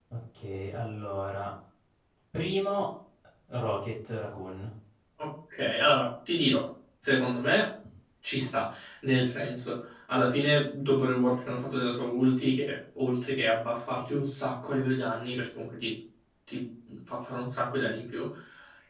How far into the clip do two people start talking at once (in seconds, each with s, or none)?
none